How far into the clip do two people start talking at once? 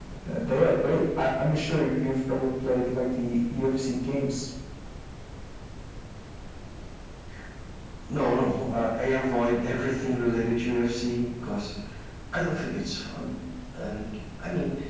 none

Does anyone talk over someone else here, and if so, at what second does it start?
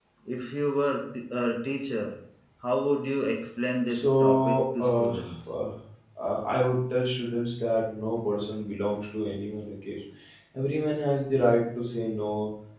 3.9 s

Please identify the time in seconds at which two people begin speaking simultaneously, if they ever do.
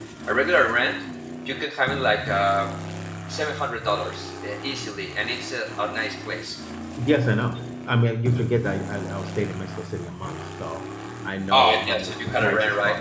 11.5 s

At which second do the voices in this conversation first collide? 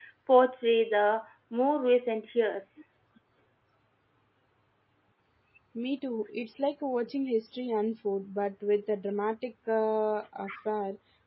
none

